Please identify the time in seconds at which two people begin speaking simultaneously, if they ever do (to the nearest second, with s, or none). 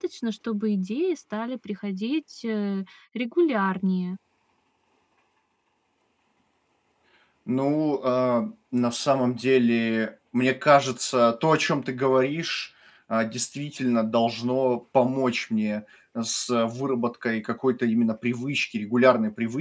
none